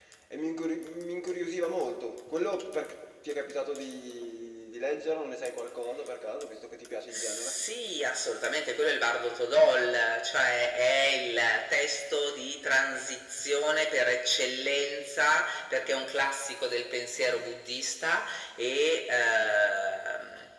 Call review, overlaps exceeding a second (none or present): none